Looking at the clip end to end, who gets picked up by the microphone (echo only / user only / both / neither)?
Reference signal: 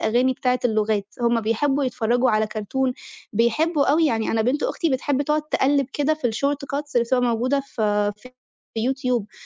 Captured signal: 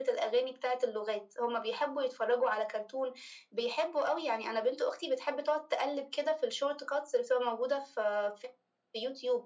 echo only